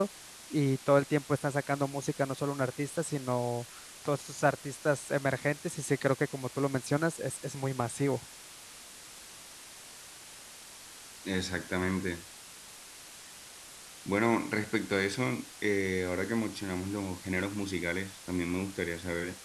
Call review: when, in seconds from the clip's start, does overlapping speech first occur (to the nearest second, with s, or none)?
none